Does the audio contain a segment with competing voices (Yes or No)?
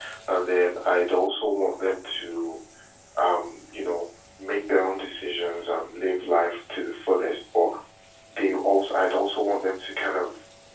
No